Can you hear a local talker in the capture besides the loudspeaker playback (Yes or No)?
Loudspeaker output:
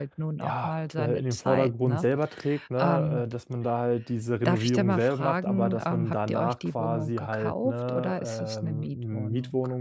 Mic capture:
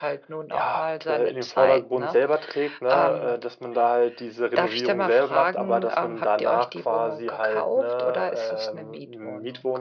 No